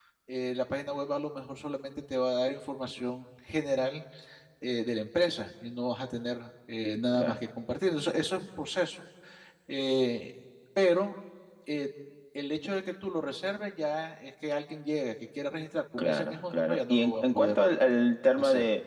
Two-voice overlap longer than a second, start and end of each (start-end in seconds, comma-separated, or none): 16.0-17.6